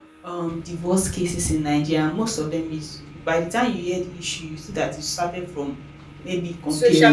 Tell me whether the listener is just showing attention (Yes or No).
Yes